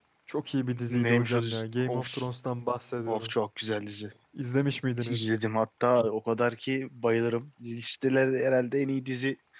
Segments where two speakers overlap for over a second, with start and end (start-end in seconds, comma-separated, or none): 0.9-2.1